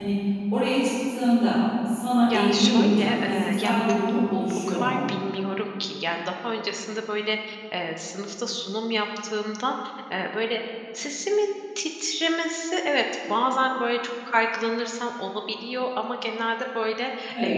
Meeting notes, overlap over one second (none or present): present